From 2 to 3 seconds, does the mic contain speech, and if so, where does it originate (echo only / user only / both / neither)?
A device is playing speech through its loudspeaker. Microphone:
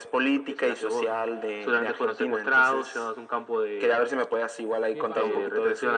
echo only